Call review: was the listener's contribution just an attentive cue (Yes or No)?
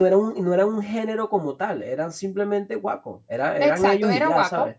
No